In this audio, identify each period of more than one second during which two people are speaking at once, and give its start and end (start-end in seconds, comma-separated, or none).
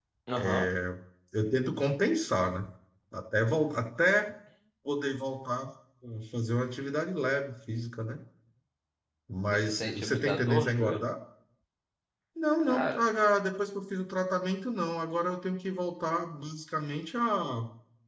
9.5-11.0